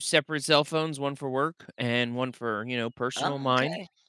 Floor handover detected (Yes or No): Yes